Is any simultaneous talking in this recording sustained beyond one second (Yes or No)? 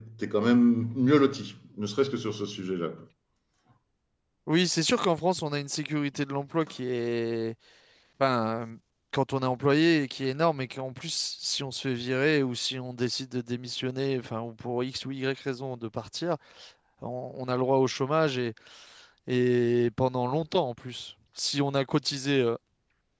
No